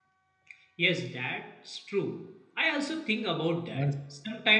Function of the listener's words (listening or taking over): listening